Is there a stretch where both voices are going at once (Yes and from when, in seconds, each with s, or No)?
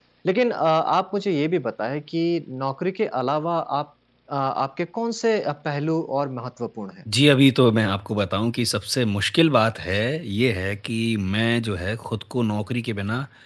No